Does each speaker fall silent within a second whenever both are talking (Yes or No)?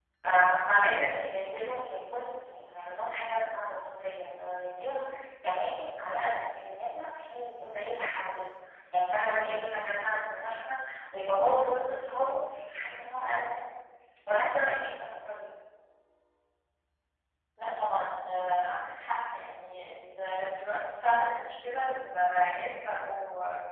Yes